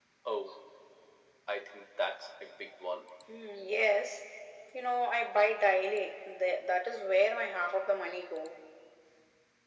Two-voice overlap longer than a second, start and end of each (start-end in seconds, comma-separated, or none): none